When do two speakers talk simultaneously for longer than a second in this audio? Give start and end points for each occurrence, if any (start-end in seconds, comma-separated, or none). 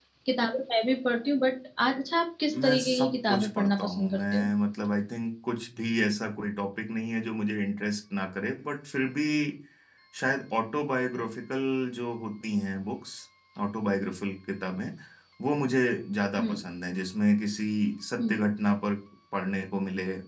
2.6-4.5